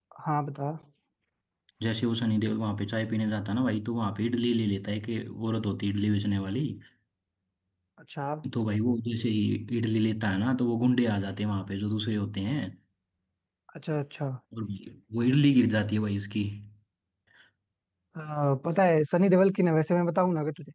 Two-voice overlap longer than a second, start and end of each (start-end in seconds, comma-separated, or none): none